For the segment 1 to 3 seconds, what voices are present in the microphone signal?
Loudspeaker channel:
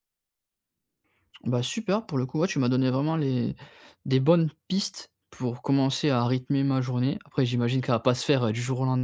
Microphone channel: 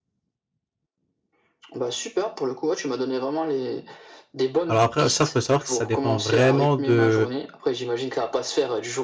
echo only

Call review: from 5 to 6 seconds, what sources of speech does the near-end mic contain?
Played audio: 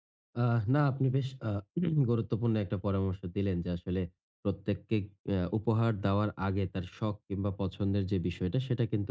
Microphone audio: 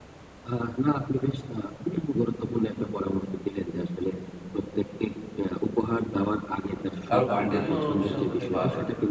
echo only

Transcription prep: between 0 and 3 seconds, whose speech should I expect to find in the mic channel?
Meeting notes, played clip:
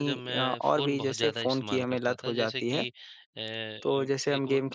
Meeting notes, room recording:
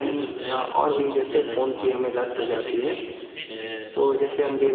both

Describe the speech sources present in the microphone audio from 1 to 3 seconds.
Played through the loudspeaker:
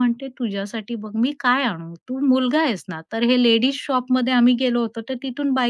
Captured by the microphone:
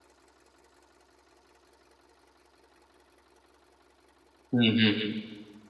neither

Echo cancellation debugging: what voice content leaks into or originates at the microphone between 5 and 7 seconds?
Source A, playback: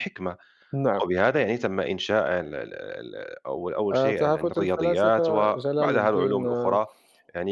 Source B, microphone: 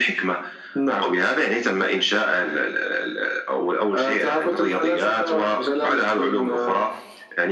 echo only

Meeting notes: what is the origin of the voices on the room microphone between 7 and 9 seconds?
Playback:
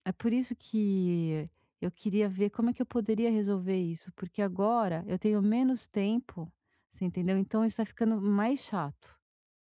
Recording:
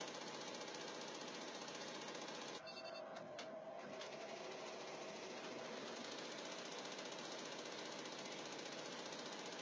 neither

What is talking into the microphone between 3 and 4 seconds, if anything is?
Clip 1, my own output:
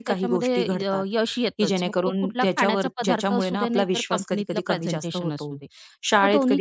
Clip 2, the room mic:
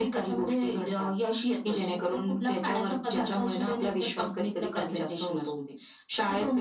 echo only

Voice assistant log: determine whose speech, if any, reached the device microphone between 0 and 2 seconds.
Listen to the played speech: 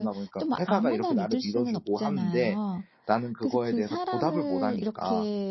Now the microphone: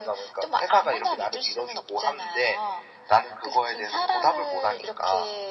echo only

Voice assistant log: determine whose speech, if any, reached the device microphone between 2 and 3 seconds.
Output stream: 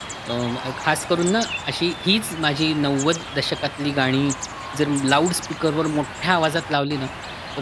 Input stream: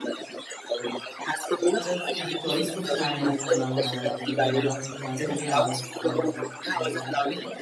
both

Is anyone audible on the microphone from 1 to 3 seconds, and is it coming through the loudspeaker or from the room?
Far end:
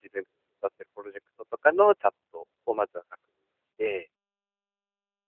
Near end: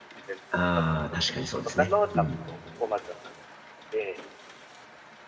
both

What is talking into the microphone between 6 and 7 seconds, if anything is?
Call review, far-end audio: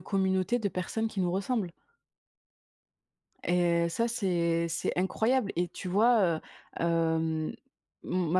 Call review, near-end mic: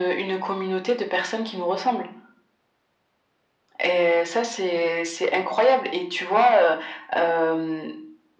echo only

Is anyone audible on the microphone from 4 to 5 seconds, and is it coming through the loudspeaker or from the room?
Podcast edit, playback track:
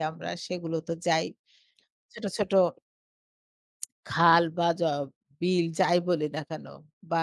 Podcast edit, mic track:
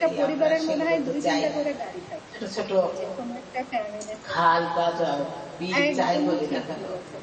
both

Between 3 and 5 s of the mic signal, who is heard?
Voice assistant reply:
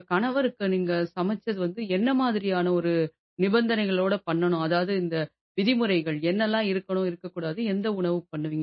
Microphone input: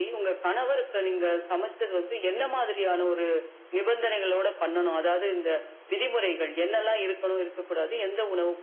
echo only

